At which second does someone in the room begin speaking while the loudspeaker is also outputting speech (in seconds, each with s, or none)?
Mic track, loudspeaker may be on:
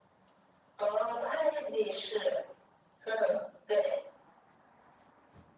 none